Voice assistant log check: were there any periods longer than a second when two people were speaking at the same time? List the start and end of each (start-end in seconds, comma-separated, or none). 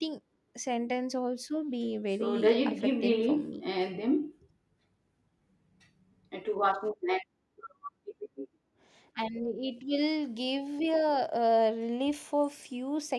2.2-3.6